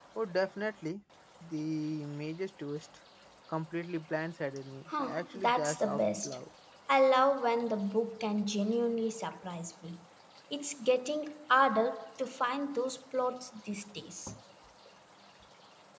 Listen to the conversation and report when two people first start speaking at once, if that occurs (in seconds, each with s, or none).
4.9 s